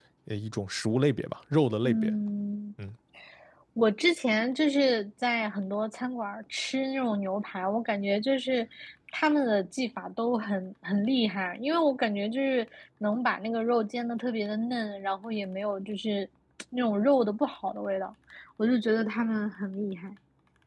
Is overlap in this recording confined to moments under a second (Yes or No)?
Yes